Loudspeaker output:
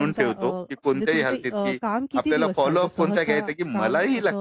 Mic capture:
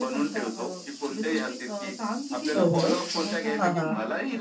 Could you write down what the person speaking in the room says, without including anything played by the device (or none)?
हो, हो. हां, हां.